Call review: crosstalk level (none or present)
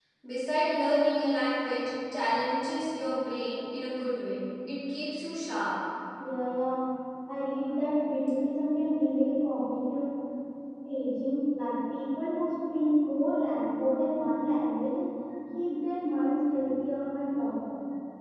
none